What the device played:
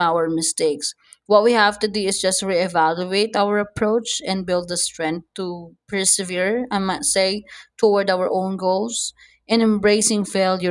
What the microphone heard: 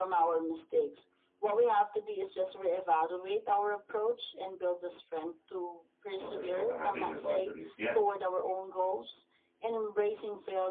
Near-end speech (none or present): present